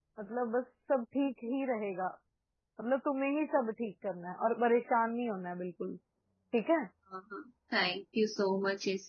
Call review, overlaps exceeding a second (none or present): none